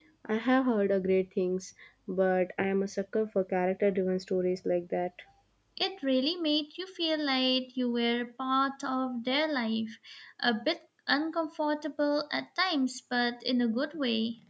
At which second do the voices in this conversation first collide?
none

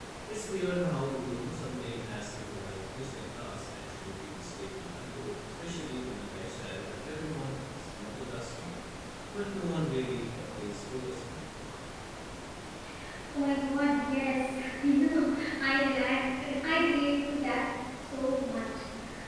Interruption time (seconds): none

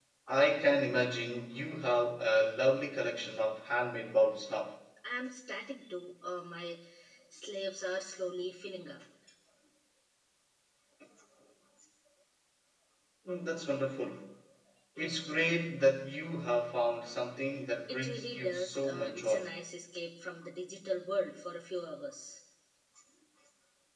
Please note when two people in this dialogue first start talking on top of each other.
17.9 s

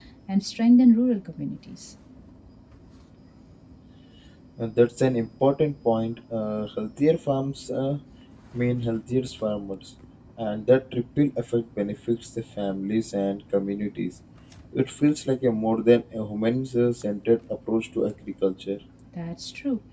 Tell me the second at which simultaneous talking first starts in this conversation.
none

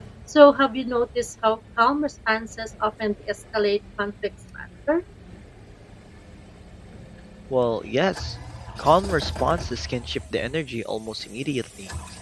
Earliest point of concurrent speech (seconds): none

